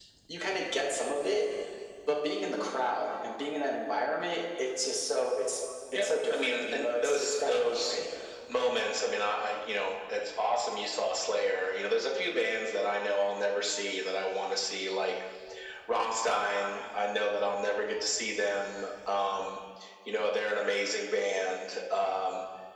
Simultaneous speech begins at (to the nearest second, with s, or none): 6 s